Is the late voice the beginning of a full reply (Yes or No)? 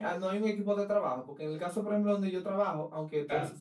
No